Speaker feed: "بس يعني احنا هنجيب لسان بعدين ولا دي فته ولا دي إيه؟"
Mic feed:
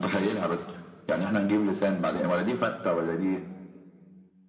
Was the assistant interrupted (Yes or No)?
No